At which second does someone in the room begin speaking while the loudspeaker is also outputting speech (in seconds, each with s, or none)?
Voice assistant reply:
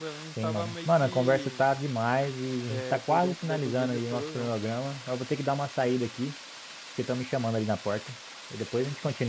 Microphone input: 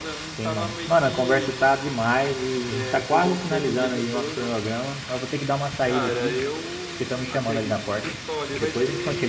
5.8 s